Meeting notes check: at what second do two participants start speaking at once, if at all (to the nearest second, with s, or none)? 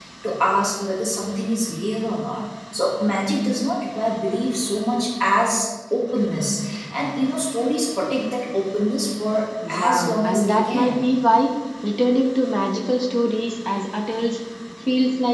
10 s